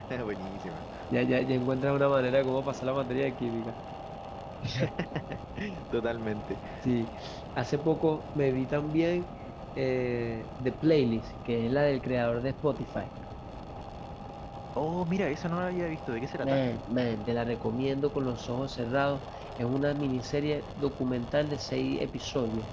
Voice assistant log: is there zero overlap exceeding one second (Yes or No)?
Yes